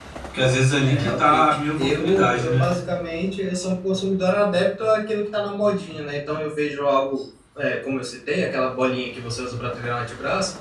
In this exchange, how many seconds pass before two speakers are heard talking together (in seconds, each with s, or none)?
0.8 s